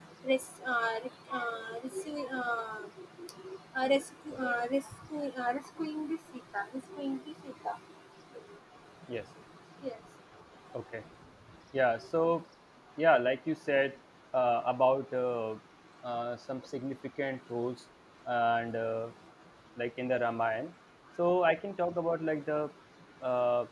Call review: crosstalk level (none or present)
none